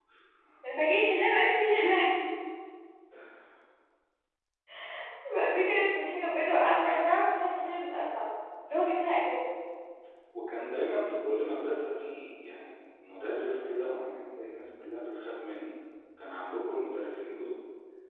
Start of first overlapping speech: none

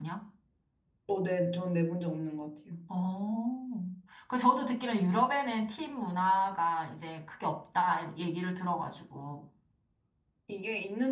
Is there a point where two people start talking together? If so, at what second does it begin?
none

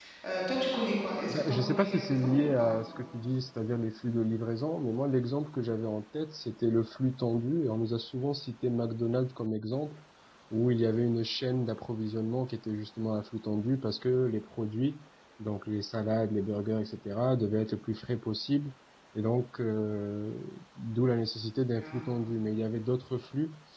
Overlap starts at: 1.3 s

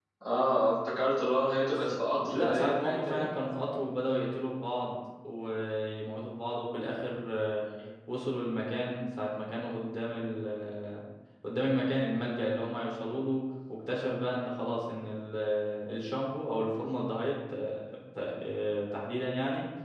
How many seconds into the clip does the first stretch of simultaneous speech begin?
1.7 s

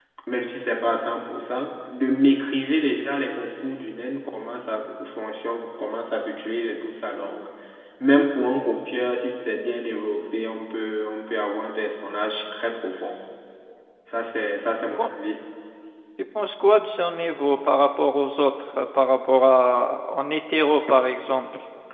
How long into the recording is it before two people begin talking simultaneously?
none

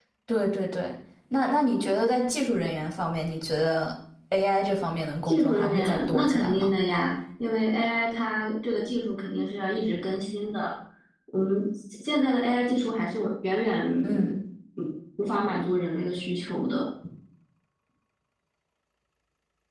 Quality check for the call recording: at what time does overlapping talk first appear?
5.3 s

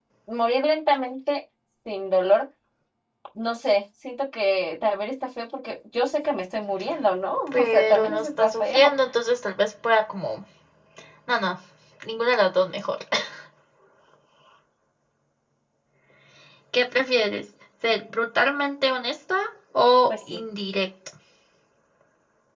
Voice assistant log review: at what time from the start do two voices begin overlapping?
7.5 s

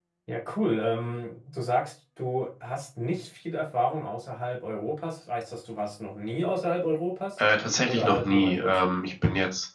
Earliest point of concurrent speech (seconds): 7.8 s

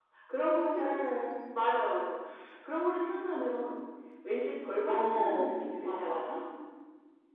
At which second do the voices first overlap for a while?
4.9 s

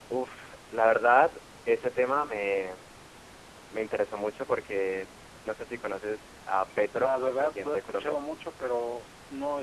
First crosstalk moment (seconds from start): 7.0 s

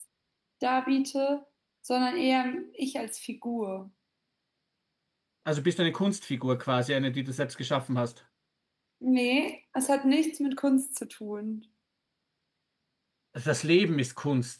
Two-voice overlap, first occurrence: none

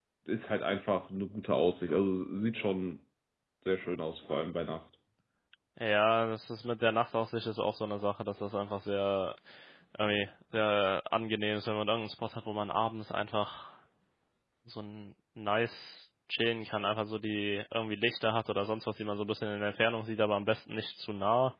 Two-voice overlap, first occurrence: none

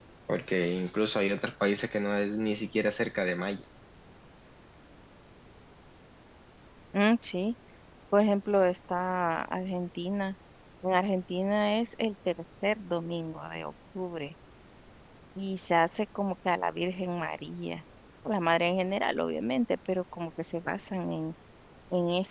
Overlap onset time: none

